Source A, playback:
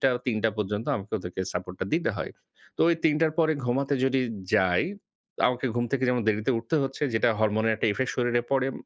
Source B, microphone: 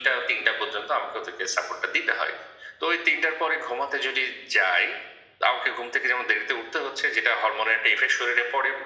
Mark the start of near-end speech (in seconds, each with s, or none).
none